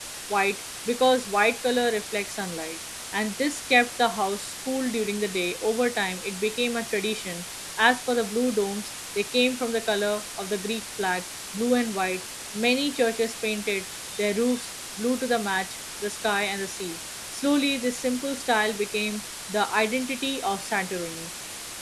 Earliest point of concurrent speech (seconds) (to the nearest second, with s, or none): none